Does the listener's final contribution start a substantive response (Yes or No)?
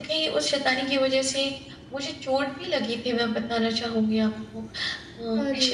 No